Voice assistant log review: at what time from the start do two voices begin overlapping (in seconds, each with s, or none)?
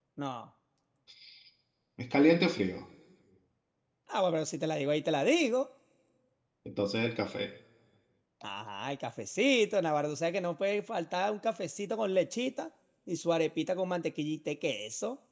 none